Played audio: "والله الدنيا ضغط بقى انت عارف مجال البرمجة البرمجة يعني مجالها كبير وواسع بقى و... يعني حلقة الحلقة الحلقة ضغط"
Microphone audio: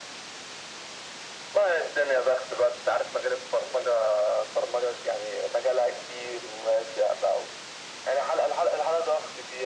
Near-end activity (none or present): none